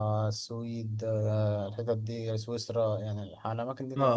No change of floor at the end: No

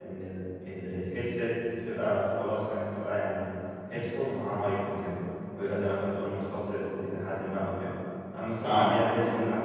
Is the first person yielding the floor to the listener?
No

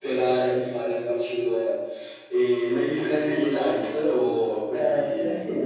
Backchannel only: No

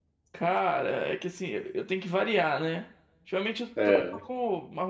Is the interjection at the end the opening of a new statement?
No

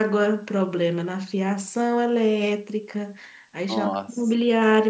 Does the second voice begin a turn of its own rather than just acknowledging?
No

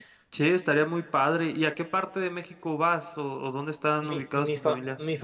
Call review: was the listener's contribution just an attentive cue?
No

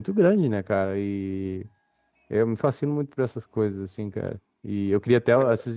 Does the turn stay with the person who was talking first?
Yes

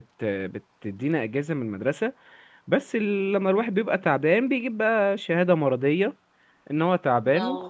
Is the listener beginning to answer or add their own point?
No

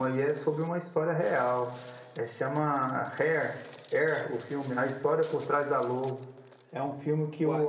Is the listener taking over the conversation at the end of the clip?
No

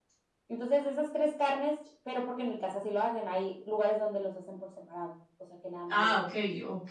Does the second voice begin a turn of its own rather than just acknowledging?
Yes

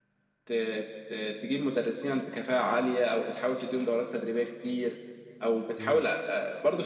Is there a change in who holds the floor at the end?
No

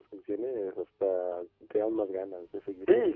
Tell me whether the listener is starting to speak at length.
Yes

